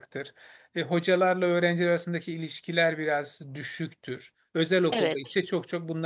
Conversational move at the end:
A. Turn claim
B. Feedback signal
B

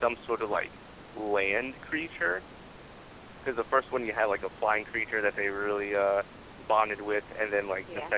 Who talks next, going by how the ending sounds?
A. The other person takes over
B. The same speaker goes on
B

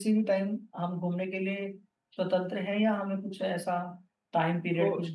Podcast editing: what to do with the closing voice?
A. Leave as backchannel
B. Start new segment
A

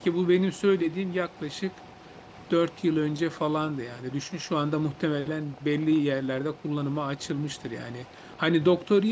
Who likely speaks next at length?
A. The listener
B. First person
B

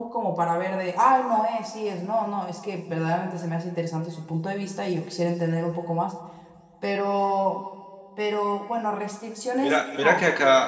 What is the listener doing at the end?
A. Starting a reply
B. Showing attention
A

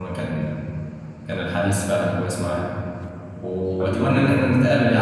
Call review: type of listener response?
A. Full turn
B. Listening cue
B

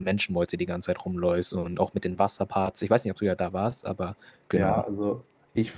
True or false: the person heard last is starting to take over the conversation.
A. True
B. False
A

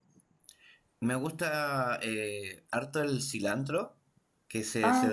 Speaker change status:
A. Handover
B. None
B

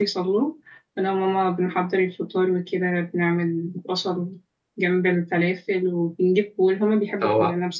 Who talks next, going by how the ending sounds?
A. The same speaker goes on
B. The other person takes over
A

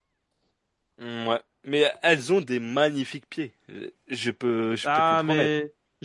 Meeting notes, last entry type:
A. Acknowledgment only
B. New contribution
B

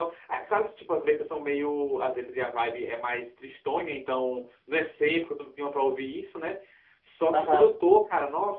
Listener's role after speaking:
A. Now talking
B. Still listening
B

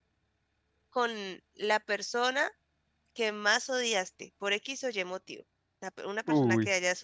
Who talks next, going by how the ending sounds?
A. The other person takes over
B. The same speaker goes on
B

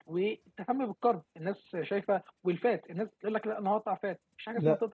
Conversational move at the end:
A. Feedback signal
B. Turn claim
B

